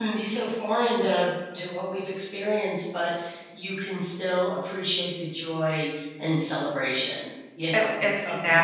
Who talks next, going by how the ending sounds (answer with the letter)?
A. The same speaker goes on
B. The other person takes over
B